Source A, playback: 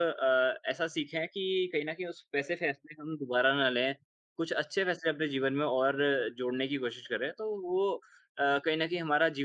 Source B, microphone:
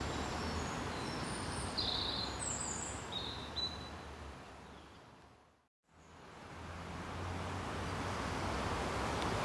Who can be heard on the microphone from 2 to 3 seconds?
neither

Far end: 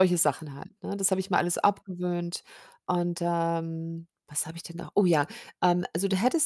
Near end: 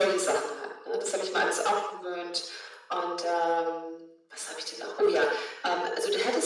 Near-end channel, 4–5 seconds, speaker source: echo only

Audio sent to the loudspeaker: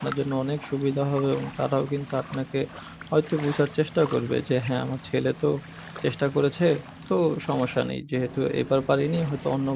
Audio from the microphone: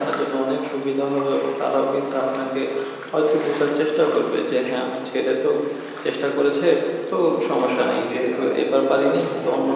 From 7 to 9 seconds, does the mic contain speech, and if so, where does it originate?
both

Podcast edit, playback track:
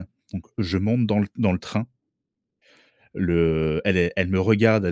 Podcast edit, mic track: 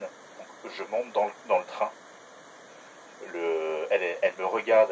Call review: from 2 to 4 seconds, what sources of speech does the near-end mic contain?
echo only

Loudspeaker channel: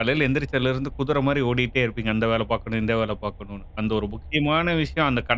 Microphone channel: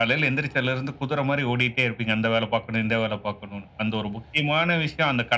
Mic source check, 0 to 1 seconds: echo only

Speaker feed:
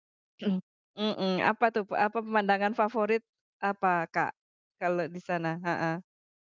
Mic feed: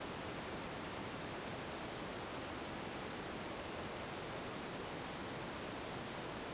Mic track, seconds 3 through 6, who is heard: neither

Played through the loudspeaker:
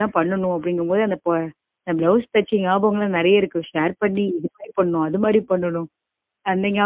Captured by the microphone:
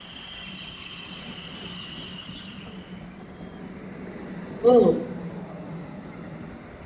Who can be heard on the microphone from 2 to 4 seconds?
neither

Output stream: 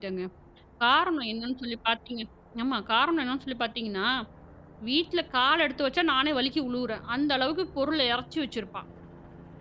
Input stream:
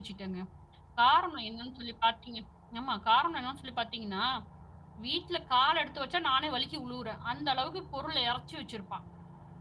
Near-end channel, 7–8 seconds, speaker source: echo only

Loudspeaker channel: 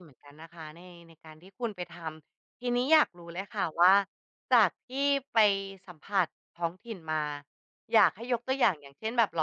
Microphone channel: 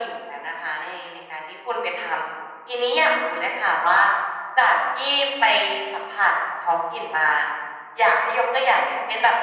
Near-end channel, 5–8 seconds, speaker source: echo only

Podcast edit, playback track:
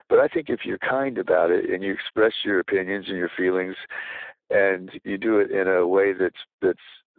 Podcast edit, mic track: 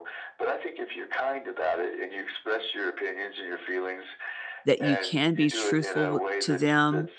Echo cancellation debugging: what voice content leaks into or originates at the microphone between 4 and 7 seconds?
both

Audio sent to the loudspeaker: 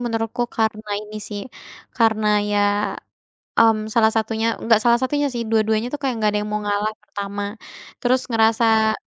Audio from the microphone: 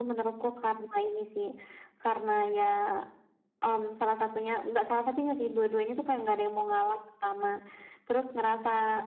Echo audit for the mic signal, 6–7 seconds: echo only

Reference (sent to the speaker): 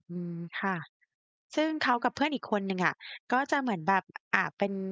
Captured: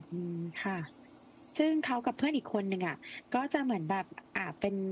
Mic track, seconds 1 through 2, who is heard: echo only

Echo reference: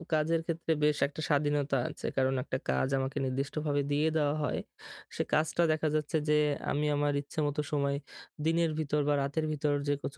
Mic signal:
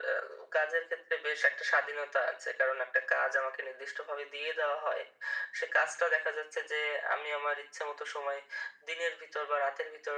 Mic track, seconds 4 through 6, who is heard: echo only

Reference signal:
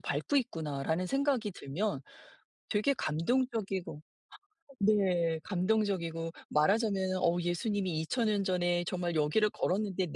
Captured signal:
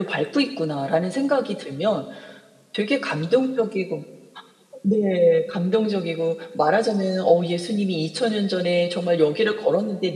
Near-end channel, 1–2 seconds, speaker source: echo only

